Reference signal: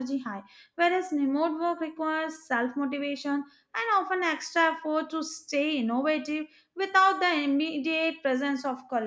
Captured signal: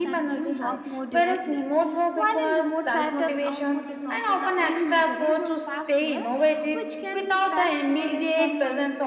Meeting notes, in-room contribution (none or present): present